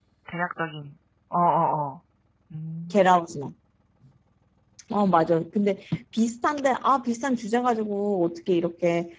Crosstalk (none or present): none